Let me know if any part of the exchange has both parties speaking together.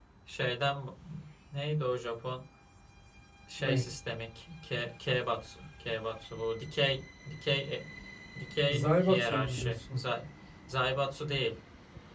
Yes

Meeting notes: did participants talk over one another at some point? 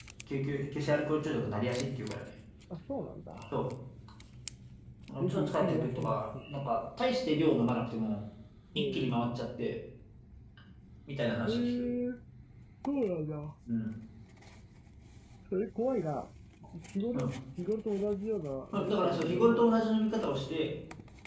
Yes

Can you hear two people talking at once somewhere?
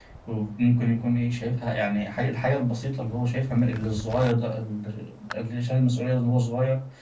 No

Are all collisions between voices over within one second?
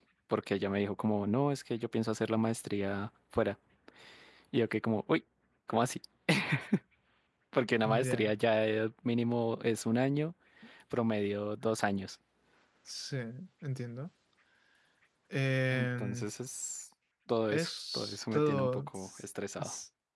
No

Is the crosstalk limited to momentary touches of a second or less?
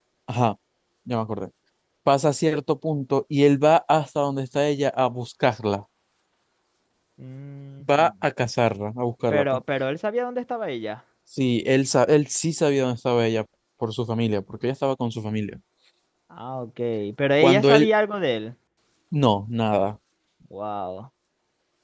Yes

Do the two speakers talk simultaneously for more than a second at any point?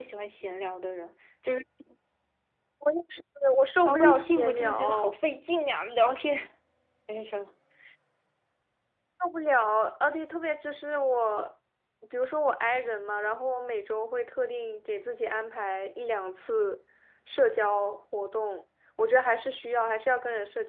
Yes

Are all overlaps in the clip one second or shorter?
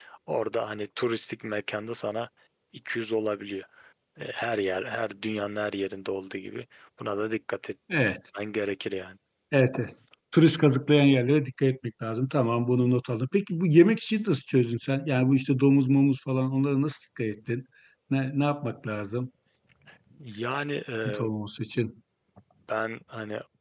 Yes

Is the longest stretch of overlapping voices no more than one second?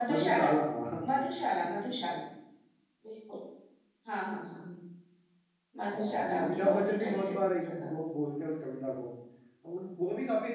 No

